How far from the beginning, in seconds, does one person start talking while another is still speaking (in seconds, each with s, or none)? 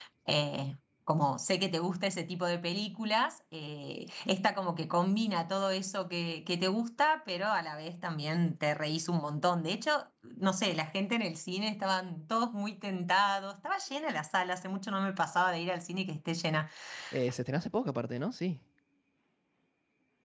none